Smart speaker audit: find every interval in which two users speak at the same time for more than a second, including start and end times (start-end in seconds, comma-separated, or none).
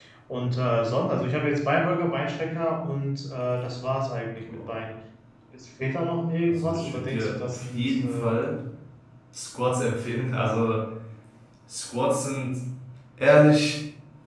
6.5-8.3